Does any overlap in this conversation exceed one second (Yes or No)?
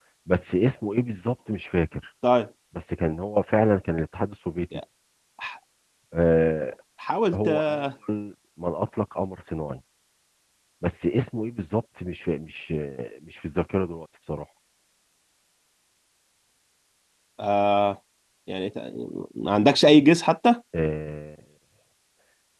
No